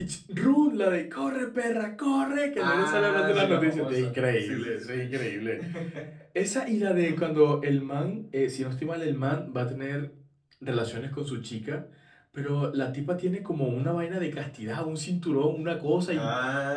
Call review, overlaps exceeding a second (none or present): present